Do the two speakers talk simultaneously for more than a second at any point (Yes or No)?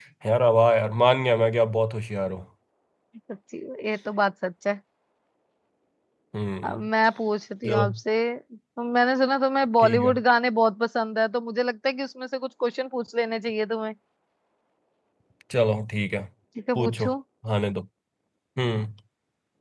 No